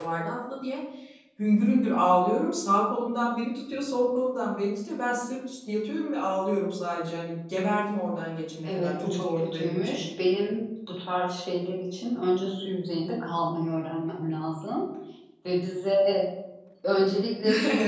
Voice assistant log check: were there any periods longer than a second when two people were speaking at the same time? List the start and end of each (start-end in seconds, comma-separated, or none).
8.7-10.0